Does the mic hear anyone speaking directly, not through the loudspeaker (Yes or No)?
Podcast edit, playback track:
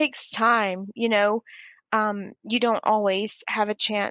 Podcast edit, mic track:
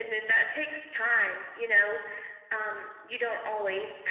No